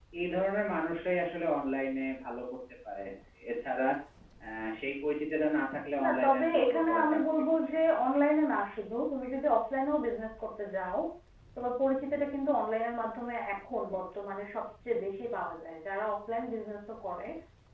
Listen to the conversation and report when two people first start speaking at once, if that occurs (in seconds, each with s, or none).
6.0 s